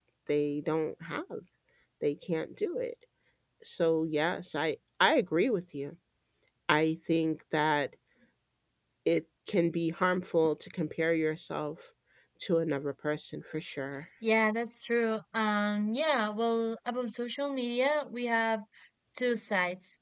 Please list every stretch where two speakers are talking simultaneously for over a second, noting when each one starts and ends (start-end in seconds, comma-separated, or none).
none